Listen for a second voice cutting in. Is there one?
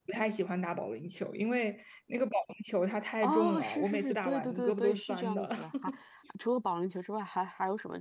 Yes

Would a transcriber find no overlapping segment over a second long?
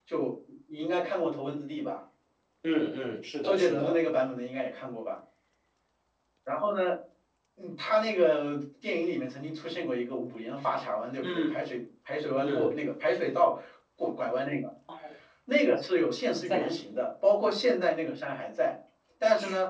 Yes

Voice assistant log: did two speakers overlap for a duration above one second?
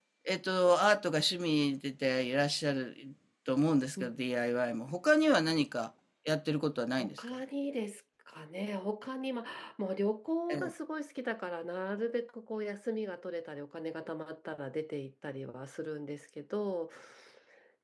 No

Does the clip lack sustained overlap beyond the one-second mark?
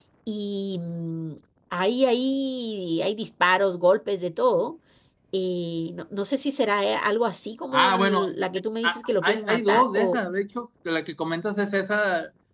No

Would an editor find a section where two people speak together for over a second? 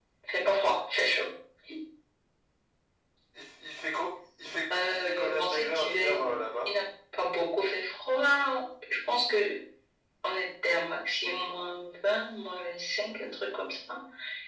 Yes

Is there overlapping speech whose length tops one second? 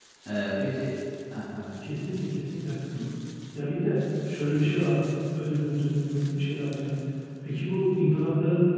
No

